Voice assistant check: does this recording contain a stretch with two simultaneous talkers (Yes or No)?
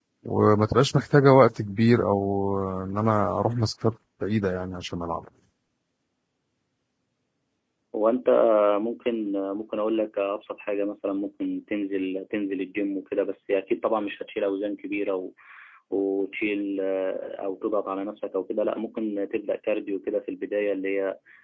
No